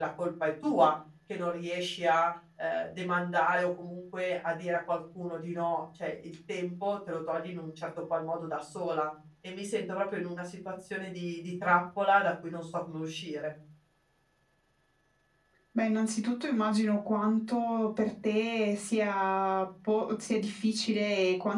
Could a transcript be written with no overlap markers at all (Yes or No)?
Yes